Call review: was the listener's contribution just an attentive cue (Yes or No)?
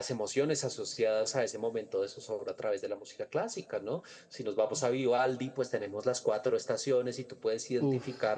Yes